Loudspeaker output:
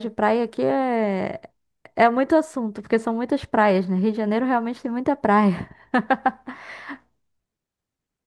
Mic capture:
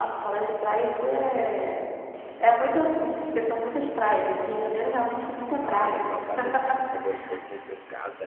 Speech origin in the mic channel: both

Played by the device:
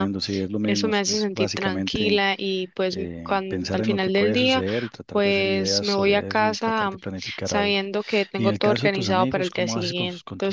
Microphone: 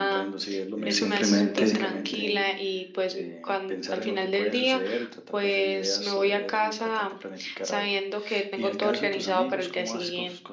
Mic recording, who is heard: both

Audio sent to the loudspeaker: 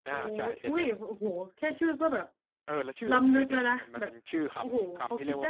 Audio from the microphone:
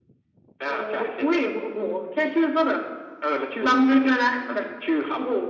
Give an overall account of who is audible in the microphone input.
echo only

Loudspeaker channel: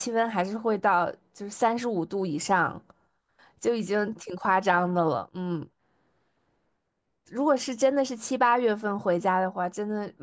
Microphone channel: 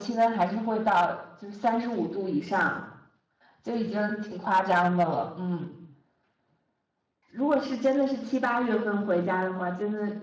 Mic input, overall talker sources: echo only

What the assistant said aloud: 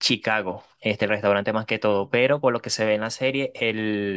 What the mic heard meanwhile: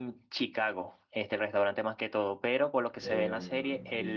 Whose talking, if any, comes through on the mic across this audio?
both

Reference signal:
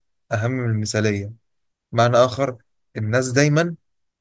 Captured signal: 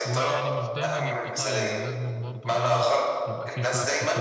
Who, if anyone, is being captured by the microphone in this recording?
both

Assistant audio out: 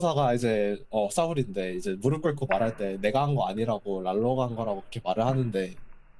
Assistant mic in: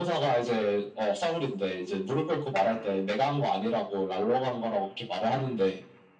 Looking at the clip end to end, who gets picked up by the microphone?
echo only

